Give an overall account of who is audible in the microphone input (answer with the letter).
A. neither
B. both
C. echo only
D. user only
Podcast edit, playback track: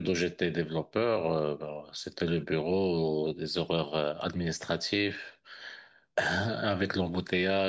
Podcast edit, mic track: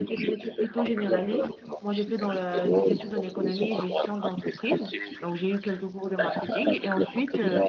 B